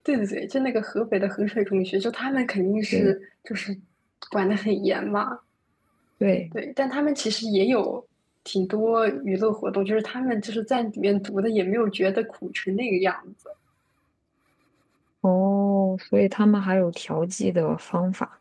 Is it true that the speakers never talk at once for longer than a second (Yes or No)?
Yes